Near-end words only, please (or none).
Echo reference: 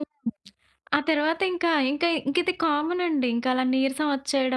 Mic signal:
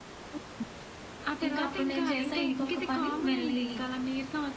ఇంకప్పుడు నేను చేశా ఇంకొక పని. వేళ్ళీ